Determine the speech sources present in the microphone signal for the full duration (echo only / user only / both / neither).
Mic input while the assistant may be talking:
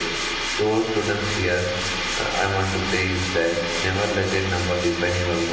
echo only